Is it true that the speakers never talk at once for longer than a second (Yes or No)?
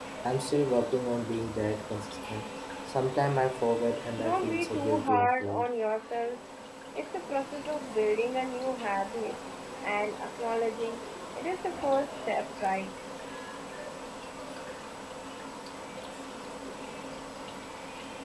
No